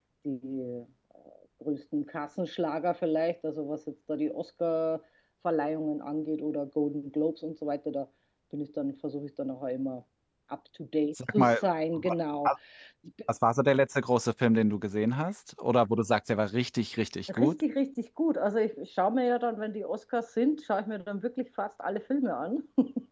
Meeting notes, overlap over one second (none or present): none